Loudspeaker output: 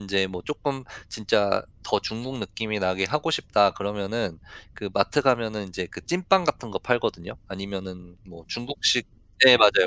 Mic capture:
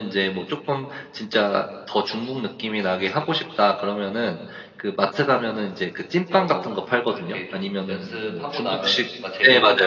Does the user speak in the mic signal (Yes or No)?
Yes